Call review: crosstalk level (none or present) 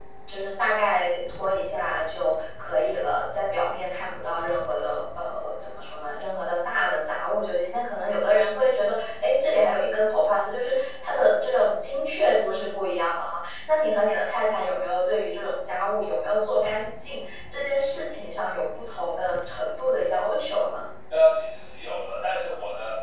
none